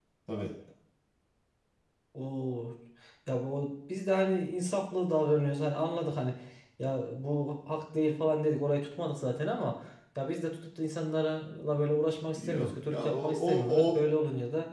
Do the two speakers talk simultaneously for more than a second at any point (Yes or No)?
Yes